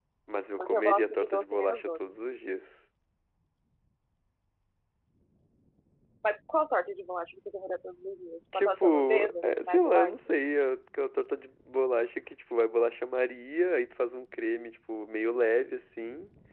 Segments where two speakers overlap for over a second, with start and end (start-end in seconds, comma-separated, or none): 0.6-1.9, 8.5-10.2